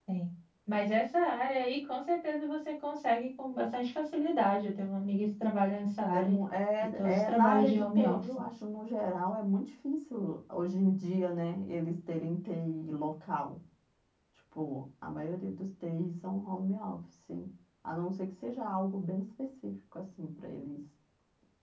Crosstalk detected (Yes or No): Yes